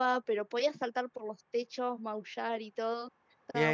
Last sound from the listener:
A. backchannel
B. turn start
B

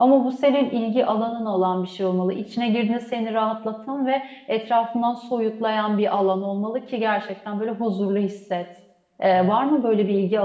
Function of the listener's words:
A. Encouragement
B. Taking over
A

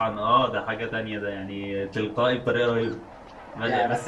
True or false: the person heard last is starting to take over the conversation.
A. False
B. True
A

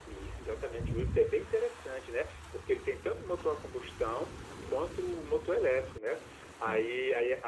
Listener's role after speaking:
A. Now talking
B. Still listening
B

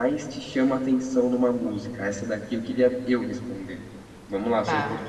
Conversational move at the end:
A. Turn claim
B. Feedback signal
B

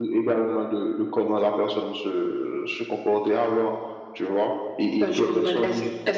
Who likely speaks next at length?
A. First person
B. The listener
B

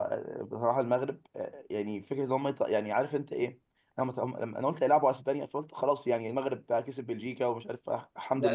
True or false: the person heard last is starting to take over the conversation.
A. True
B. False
A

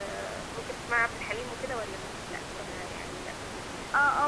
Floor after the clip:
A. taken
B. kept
A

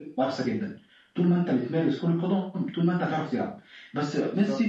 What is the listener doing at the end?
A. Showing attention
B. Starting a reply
A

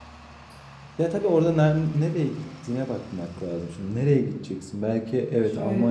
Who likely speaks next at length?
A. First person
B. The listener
B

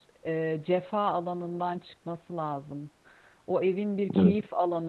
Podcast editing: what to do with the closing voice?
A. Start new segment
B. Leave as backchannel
B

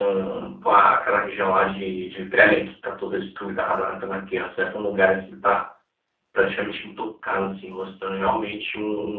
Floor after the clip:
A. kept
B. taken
A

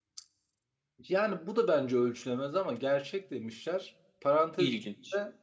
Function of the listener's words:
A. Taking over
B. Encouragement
B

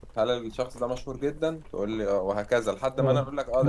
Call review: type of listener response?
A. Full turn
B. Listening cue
A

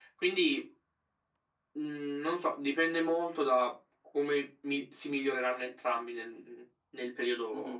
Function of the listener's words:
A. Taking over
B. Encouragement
A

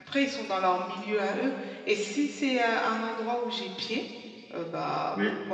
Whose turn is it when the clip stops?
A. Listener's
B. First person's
B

